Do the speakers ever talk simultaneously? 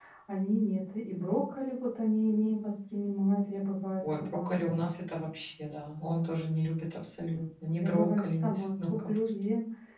Yes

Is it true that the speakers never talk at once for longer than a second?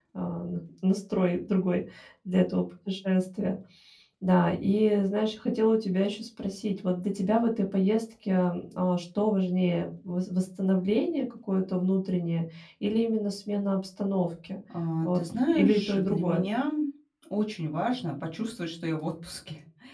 No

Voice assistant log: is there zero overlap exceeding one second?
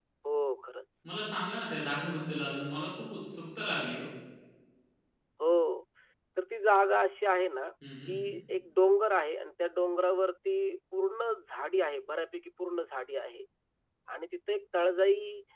Yes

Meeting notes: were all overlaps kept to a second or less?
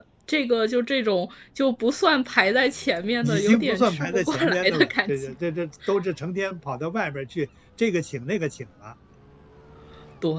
No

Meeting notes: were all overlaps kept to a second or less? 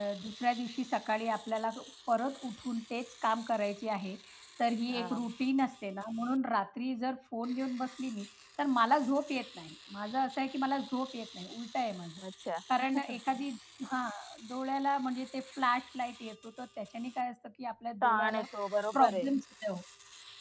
Yes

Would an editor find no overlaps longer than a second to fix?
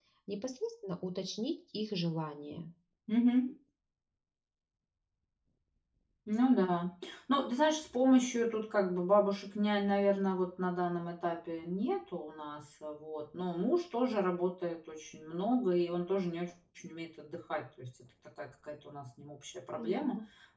Yes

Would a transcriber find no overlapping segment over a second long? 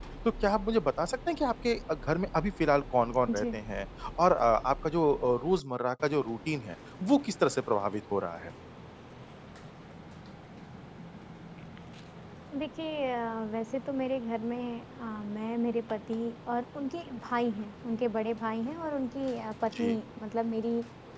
Yes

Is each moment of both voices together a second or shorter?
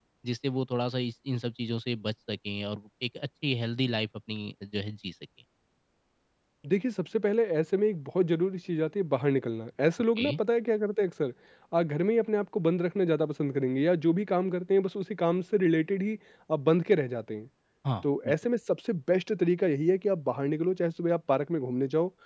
Yes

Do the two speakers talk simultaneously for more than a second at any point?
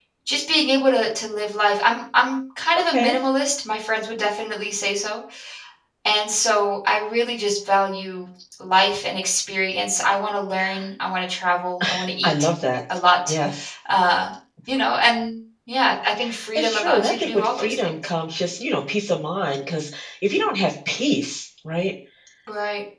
Yes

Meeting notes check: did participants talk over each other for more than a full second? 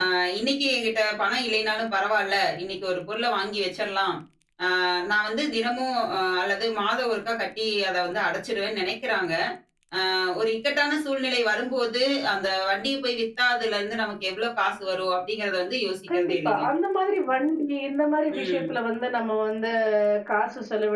No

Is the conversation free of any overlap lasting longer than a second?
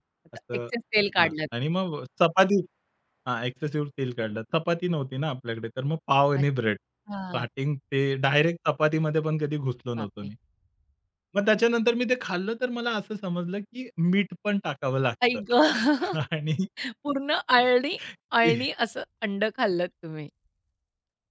Yes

